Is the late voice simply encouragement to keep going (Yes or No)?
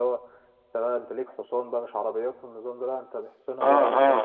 No